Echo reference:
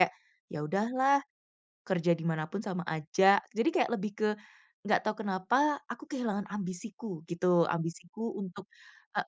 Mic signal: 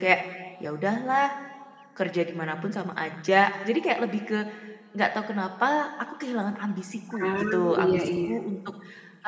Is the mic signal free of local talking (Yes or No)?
No